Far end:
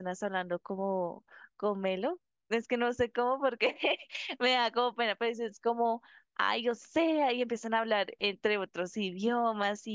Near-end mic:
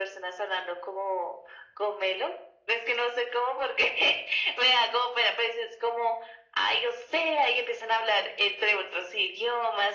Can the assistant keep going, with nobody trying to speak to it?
Yes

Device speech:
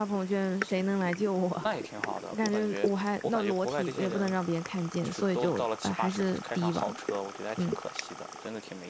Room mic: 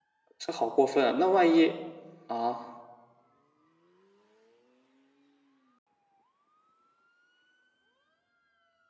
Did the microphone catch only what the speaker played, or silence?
No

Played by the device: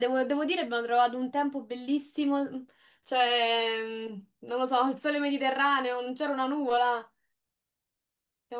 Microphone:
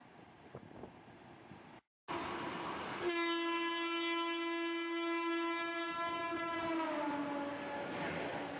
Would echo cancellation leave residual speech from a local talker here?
No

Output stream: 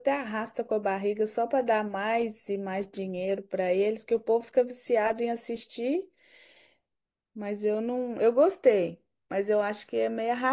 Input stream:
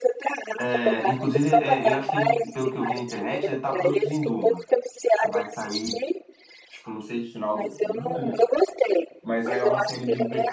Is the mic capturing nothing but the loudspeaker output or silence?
No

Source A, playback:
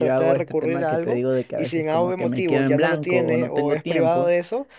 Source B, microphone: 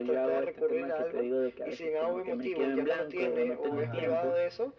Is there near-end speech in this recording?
Yes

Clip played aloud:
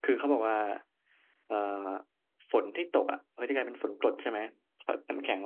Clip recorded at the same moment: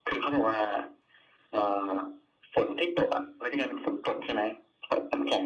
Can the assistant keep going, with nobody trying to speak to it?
Yes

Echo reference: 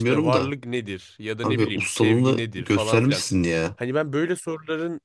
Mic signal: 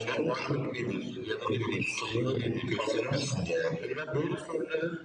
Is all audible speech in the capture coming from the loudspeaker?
Yes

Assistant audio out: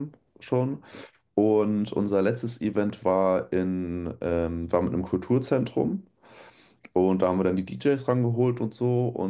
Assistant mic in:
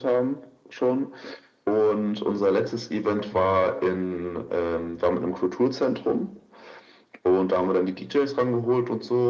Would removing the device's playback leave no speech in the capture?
Yes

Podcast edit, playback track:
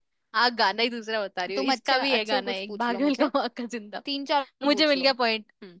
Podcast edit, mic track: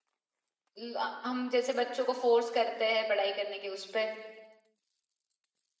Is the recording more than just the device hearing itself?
Yes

